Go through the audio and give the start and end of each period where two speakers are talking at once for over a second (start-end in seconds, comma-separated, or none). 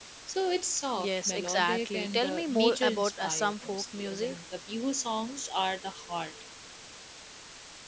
1.0-4.3